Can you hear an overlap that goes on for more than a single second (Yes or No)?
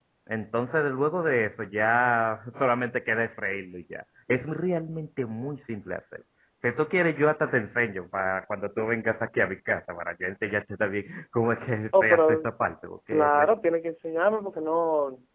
No